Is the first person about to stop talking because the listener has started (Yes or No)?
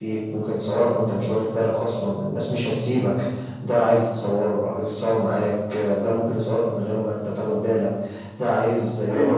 Yes